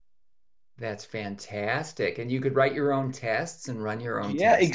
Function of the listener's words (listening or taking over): taking over